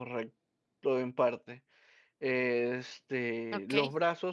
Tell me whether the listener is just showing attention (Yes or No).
Yes